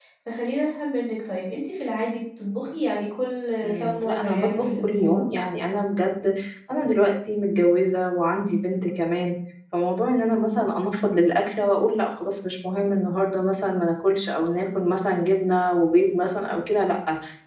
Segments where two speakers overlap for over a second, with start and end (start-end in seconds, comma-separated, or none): 3.6-5.2